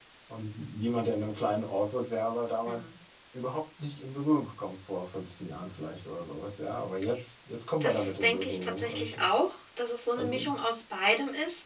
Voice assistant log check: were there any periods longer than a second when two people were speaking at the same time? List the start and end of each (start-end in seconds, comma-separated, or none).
7.8-9.3